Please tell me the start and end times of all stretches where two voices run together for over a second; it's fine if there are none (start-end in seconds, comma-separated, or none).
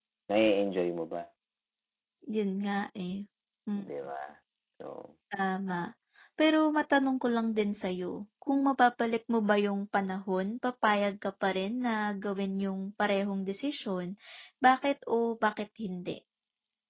none